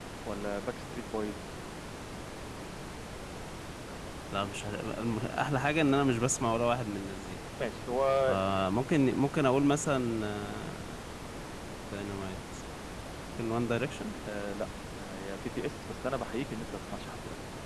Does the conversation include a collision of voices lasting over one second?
No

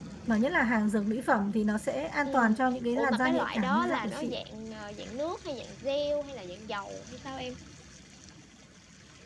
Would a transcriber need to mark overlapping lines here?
Yes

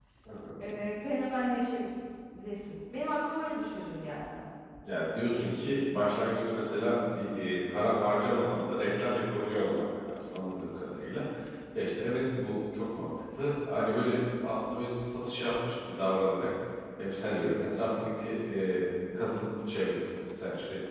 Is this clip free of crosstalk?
Yes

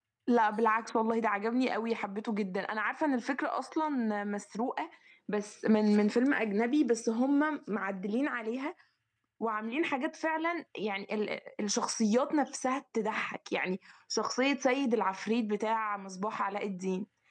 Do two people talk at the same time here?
No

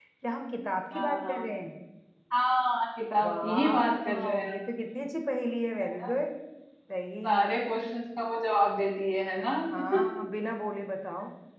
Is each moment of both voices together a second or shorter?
No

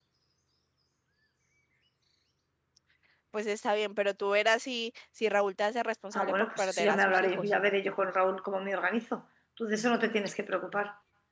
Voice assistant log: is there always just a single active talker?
No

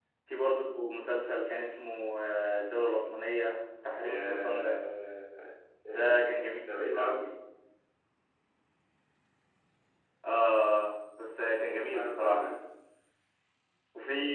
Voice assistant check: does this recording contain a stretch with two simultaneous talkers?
Yes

